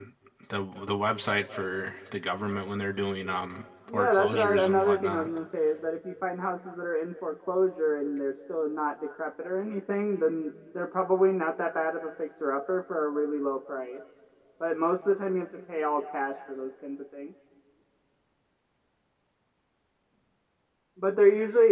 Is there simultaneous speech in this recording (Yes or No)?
Yes